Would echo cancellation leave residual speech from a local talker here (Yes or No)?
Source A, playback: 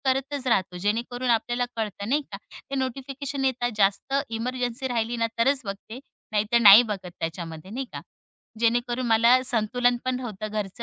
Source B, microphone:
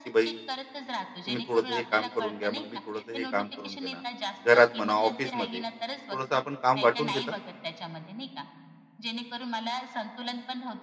Yes